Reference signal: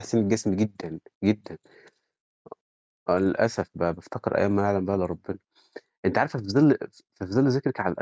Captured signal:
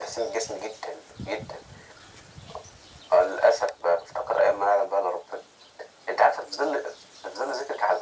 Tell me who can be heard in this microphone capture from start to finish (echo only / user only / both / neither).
echo only